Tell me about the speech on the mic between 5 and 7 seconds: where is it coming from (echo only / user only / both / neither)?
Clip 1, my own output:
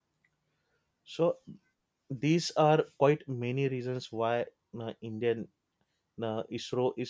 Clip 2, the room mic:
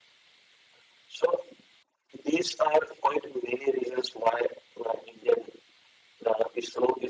echo only